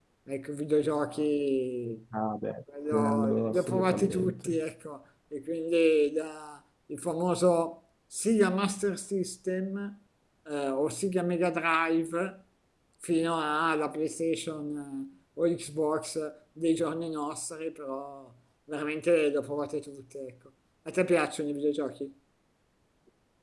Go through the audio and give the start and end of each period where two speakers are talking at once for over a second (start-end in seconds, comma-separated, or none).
2.9-4.5